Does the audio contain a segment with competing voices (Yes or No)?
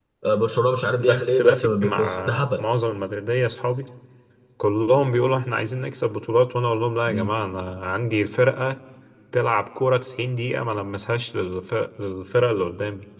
Yes